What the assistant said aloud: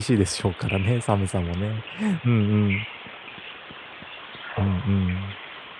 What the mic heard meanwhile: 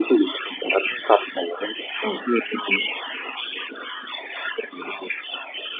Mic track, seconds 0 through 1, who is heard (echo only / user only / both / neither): echo only